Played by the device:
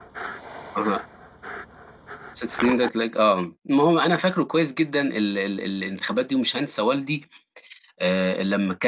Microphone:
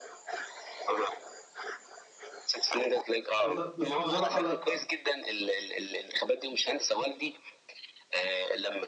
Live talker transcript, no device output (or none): بص بص بصراحة لأ،